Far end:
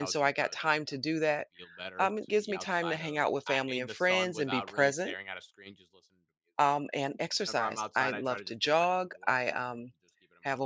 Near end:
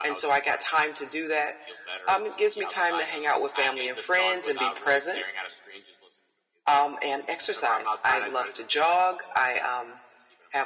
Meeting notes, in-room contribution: none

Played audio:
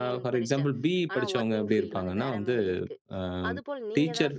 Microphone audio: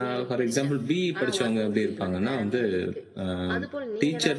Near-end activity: none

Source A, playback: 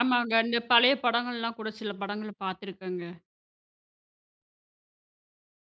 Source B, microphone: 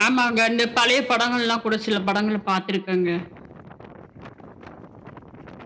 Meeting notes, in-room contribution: none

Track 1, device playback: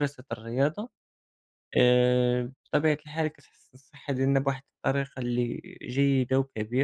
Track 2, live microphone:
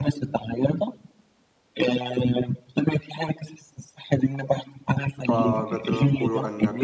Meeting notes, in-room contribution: present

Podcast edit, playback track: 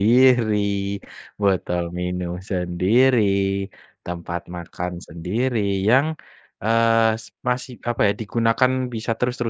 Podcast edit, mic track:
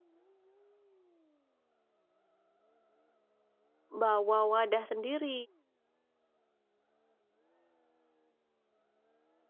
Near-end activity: present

